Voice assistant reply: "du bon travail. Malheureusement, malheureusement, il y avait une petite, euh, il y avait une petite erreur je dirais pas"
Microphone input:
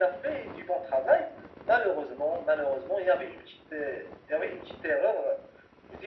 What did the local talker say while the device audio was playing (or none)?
none